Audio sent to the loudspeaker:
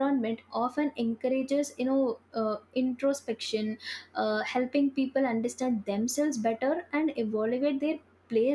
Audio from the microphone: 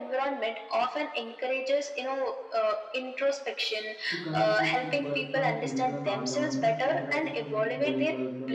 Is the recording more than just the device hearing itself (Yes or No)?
Yes